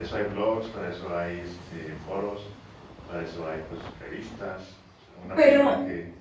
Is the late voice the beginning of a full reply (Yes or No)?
No